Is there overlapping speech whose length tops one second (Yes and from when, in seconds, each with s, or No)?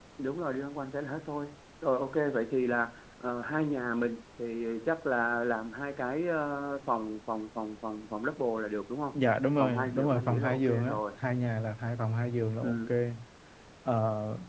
Yes, from 9.6 s